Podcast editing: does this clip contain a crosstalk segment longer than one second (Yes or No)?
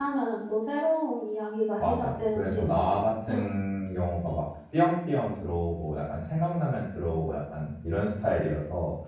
Yes